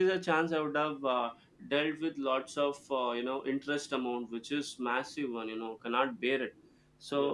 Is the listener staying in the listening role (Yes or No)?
Yes